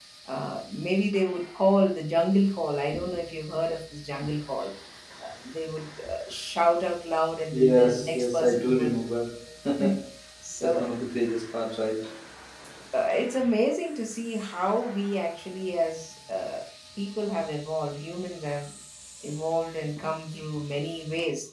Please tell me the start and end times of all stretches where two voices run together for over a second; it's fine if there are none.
7.6-9.0

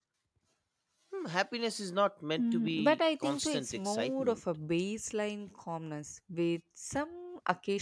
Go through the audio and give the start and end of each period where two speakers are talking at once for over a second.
2.4-4.4

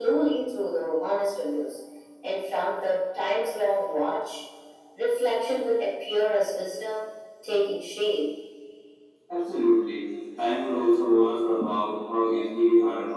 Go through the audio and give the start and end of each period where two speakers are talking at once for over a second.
none

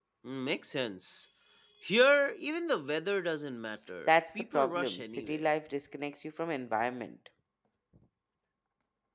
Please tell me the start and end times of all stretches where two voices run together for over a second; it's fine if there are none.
4.1-5.4

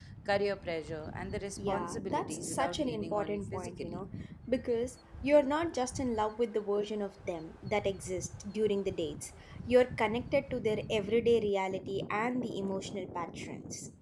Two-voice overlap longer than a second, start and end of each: 1.7-4.0

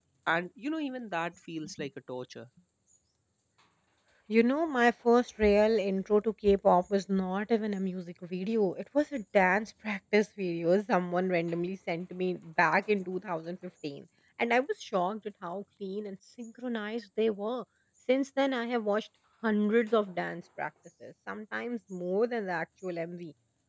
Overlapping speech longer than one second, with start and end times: none

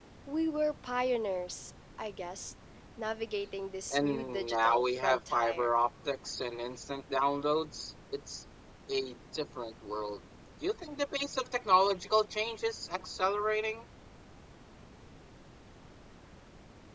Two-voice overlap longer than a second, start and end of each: 3.9-5.7

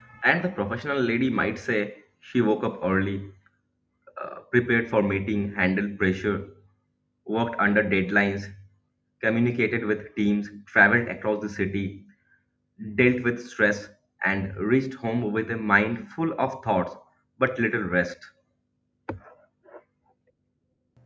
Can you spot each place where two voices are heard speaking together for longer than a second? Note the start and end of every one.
none

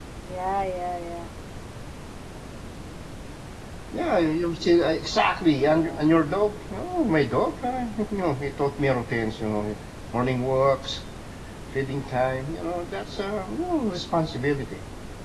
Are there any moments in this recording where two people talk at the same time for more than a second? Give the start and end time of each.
none

